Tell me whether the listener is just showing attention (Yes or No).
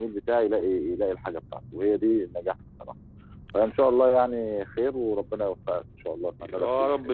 No